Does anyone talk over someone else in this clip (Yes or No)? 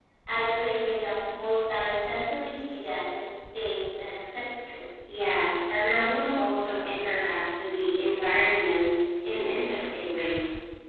No